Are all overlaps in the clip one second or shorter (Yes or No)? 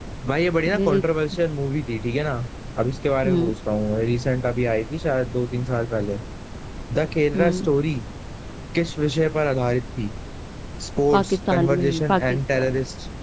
No